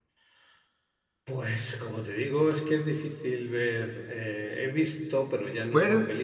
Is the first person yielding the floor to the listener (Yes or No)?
No